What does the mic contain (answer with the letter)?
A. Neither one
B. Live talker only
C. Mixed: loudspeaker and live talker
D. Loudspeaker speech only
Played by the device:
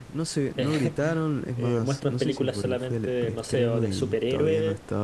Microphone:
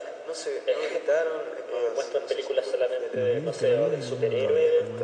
C